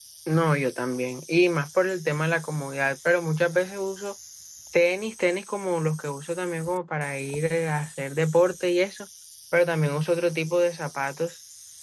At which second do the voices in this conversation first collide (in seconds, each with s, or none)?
none